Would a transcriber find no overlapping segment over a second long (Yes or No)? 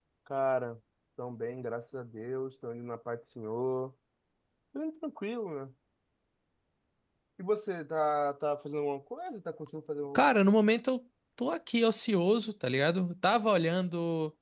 Yes